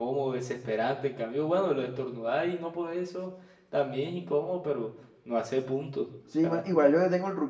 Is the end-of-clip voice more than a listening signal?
Yes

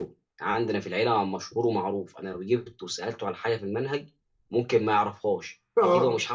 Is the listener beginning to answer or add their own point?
No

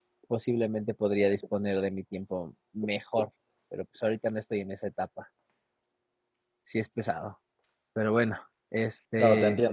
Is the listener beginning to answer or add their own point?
Yes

